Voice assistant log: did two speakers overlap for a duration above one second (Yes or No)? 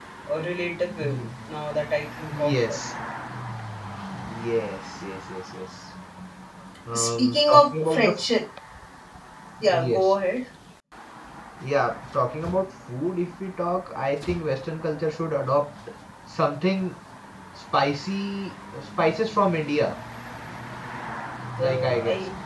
Yes